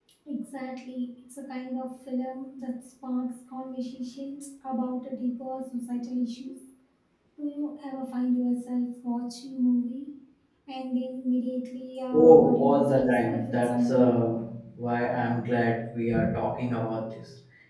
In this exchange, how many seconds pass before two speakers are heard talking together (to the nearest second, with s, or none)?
12 s